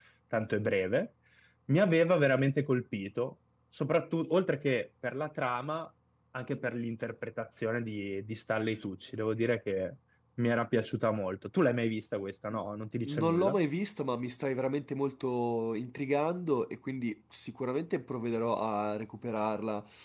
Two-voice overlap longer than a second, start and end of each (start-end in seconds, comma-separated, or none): none